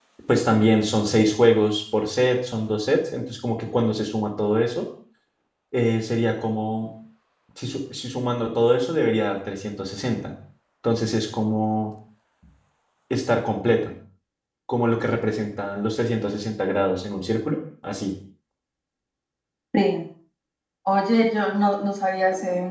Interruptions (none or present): none